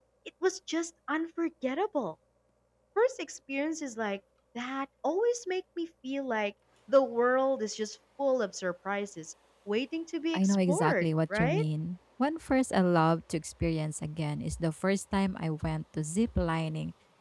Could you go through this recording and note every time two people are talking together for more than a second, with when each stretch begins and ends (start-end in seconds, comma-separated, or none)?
10.3-11.6